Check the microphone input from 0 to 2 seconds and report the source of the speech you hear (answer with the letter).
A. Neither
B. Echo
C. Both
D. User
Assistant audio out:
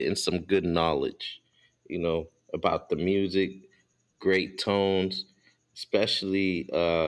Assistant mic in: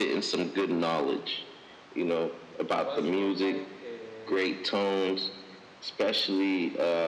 B